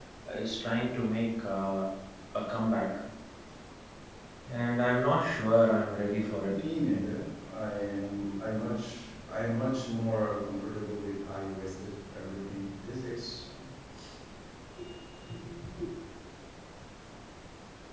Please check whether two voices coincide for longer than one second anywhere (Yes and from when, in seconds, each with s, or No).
No